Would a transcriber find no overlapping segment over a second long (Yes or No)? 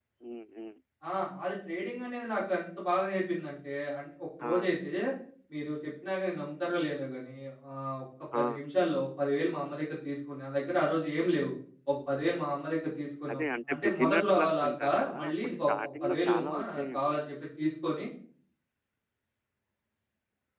No